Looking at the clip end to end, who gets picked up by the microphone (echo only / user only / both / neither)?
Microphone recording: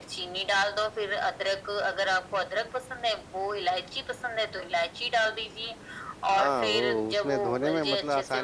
both